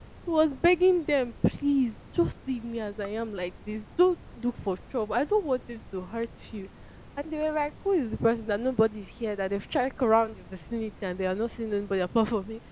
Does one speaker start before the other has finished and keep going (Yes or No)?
No